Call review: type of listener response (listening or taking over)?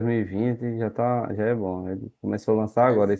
listening